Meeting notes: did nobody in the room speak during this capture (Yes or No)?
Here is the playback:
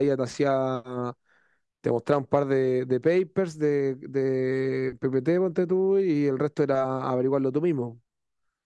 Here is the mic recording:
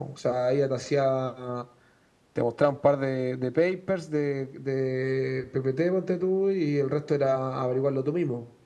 Yes